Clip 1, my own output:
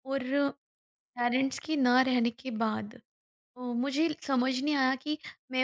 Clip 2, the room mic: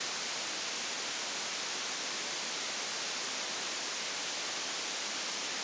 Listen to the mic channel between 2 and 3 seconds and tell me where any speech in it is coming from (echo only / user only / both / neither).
neither